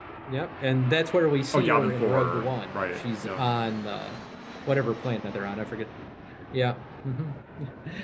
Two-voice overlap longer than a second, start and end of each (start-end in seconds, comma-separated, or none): 1.5-3.5